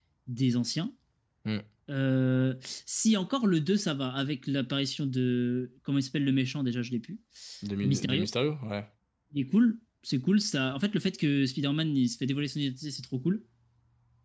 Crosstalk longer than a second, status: none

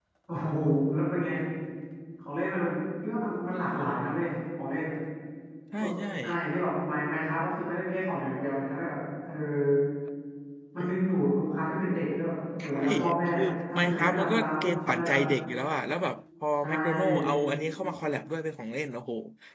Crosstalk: present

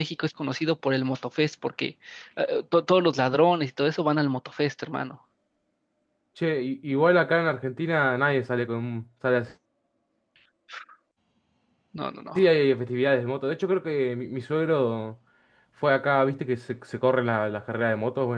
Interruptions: none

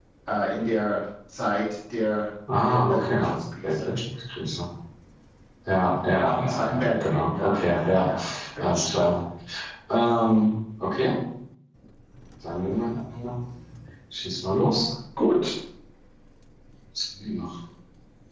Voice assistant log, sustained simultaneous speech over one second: present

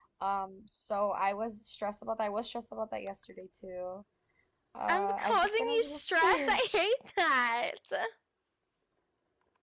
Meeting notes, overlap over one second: present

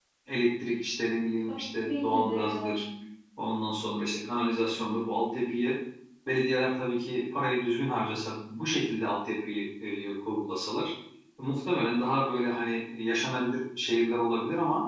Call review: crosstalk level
present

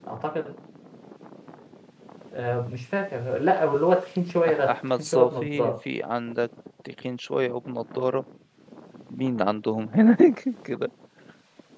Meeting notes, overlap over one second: present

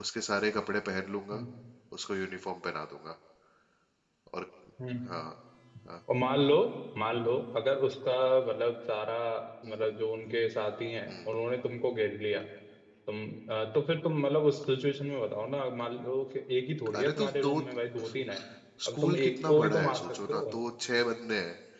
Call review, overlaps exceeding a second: present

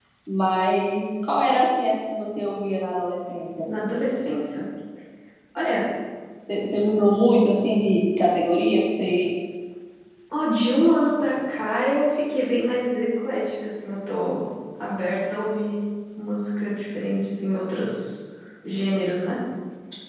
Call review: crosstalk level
none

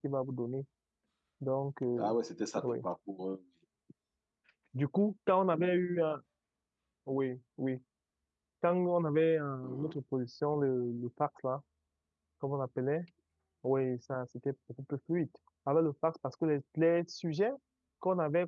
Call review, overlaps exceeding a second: none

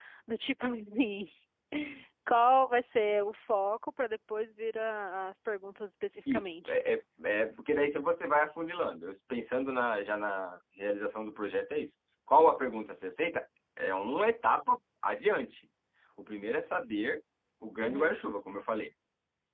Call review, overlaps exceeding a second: none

